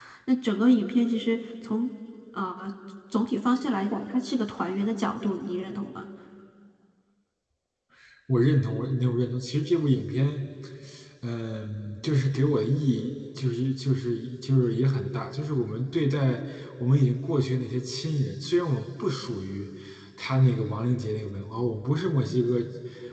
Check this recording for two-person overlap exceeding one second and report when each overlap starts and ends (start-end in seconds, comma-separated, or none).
none